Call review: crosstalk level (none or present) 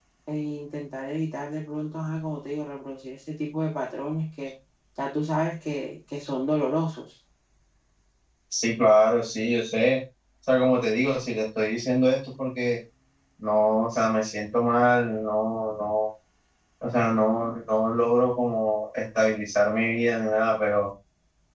none